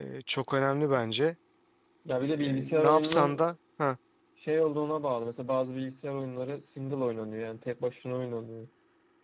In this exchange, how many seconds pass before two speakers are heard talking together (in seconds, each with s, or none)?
2.2 s